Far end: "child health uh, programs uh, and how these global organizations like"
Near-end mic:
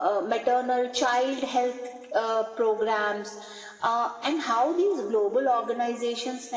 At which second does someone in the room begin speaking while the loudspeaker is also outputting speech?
none

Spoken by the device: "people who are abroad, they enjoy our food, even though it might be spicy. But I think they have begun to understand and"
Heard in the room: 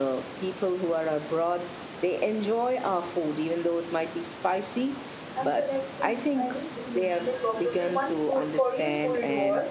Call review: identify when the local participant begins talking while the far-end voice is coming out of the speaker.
5.3 s

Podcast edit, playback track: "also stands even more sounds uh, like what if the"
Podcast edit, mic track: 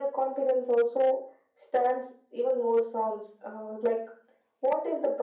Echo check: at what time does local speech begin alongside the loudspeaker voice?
none

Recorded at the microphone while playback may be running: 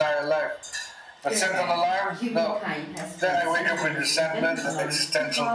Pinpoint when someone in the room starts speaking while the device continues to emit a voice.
1.2 s

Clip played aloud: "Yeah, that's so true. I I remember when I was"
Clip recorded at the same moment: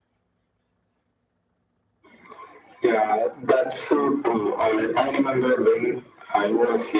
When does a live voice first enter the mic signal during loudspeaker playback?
none

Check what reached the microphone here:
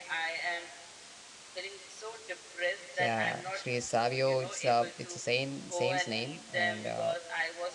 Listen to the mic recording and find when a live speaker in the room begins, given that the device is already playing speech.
3.0 s

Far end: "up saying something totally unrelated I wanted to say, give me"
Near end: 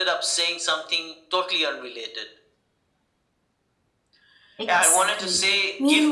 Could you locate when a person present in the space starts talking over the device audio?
4.6 s

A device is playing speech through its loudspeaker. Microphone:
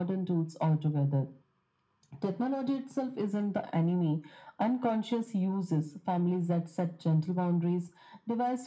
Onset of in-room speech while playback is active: none

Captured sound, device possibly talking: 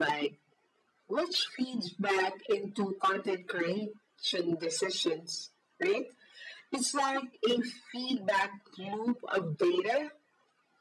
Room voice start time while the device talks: none

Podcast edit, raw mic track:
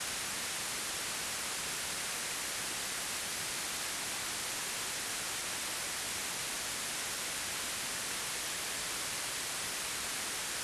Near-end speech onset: none

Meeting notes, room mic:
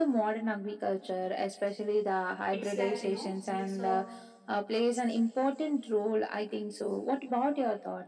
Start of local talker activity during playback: 2.5 s

